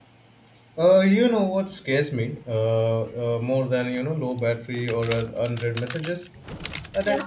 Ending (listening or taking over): listening